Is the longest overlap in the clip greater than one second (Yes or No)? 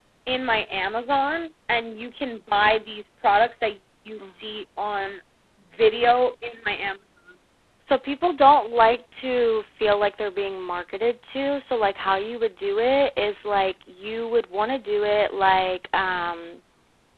No